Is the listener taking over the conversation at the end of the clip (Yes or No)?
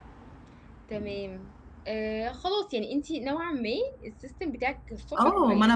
Yes